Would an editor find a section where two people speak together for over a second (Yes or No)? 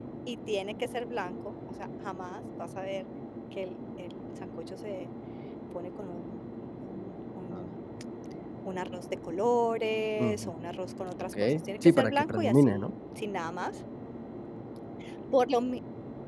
Yes